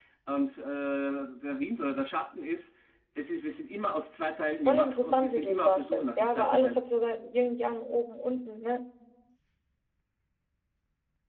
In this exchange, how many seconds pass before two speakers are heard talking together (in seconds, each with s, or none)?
4.7 s